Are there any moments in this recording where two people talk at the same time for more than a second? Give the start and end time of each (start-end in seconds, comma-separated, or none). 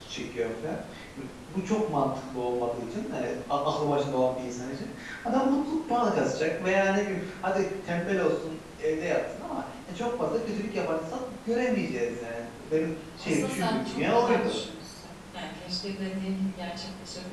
13.2-14.6